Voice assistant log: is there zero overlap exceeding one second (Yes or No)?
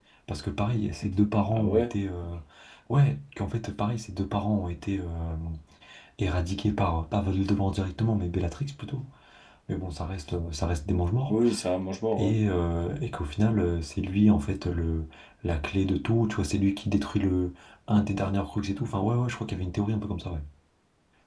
Yes